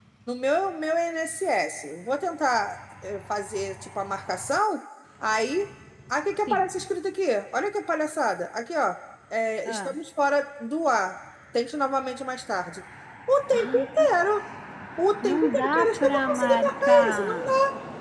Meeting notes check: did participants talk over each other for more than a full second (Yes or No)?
Yes